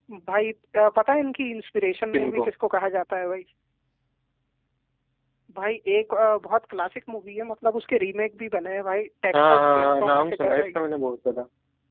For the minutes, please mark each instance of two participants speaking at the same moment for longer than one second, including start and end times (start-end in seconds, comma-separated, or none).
9.3-10.7